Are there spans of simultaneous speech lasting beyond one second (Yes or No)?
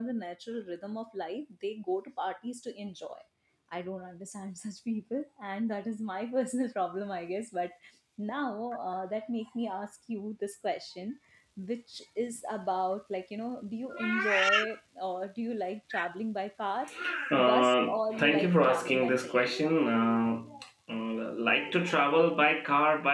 Yes